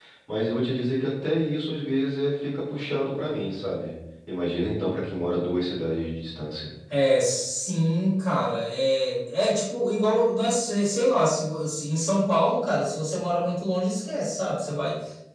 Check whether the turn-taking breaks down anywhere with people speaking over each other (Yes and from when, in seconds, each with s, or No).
No